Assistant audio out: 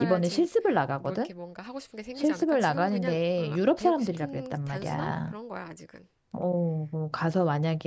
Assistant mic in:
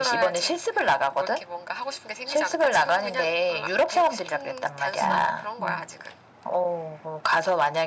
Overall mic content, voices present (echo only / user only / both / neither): both